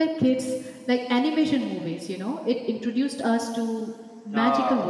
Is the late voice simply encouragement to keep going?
Yes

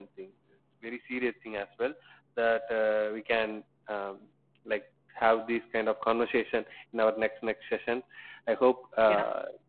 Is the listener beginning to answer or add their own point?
No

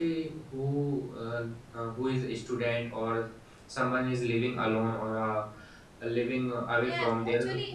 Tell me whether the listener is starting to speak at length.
Yes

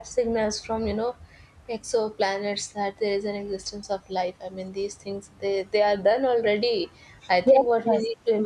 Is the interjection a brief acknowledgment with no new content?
Yes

